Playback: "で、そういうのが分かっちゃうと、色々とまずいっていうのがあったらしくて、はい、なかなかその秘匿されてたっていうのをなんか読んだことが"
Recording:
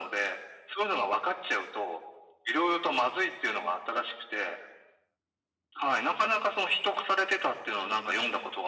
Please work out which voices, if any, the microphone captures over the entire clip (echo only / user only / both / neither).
echo only